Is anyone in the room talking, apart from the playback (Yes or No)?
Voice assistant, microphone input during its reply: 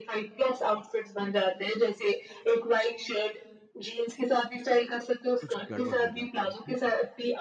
Yes